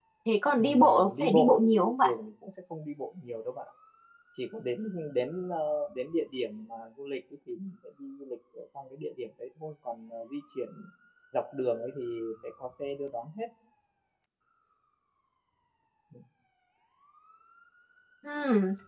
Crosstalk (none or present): present